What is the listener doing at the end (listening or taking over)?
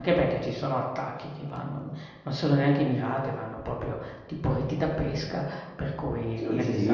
taking over